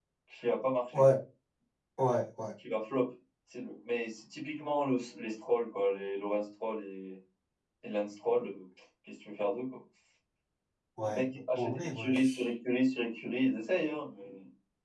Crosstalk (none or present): present